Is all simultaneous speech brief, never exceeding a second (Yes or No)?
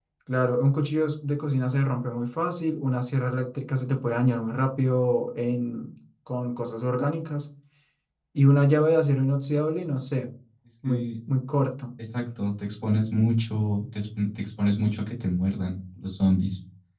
Yes